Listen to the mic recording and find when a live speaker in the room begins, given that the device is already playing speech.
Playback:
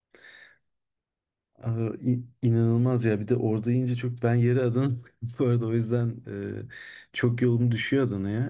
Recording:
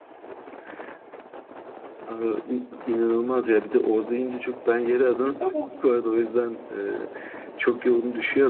5.4 s

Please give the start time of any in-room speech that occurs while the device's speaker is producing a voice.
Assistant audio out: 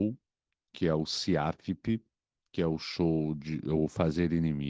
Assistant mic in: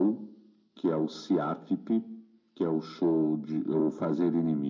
none

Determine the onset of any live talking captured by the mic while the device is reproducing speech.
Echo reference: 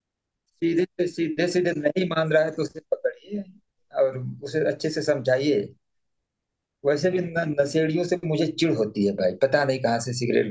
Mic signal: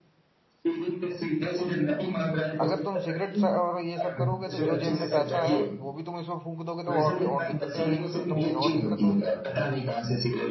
2.6 s

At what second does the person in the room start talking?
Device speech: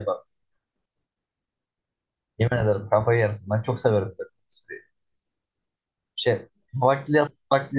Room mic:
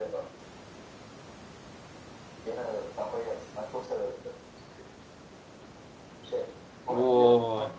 6.9 s

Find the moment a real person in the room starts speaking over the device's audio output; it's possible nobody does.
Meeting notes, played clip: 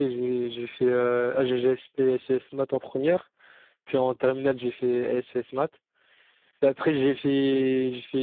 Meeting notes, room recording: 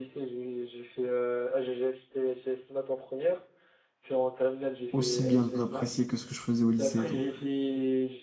4.9 s

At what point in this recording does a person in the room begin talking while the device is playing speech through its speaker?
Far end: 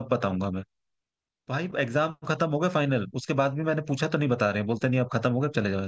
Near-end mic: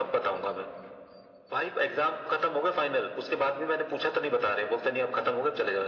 none

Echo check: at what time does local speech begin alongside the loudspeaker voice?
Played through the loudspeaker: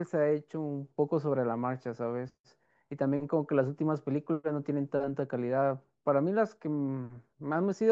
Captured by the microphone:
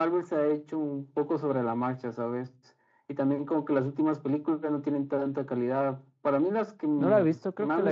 7.0 s

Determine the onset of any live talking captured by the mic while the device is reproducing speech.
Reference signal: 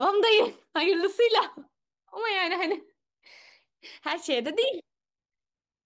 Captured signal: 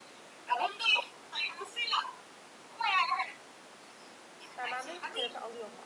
4.6 s

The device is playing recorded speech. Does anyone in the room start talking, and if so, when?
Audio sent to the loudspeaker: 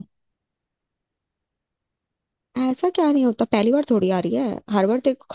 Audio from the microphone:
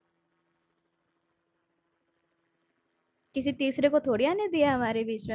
3.3 s

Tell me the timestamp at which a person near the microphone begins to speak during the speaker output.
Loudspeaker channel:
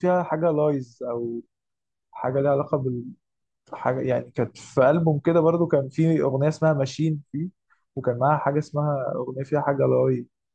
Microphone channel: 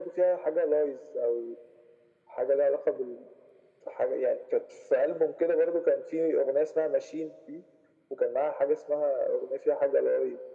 none

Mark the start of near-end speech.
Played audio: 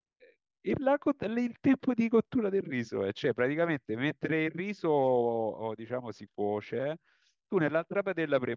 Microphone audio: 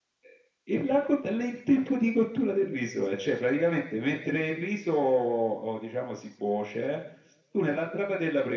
none

